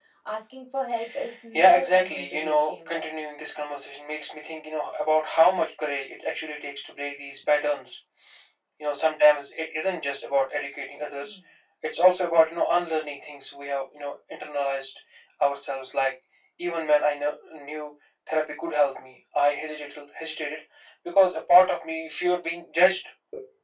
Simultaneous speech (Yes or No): Yes